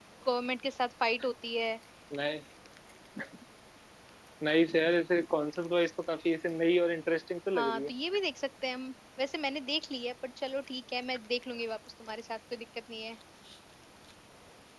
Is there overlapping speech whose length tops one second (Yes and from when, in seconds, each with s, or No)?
No